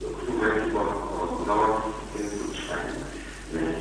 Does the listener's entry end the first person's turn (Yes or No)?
No